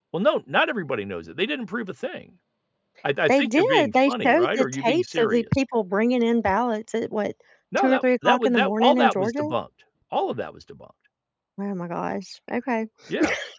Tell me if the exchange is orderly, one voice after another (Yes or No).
No